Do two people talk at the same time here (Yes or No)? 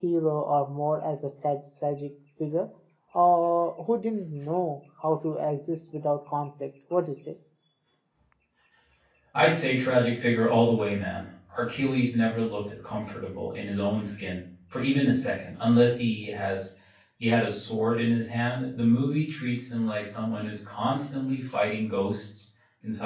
No